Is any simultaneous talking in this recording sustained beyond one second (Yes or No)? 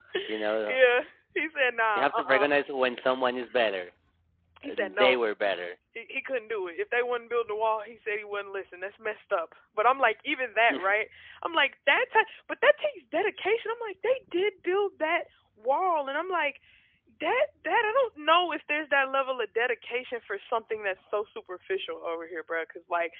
No